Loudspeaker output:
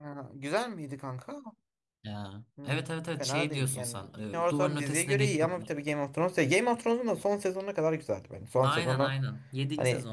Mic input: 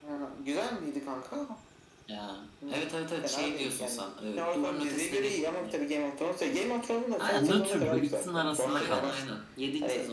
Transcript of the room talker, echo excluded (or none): Aynen nötrdü. Böyle ikisinin arasında kalmıştı.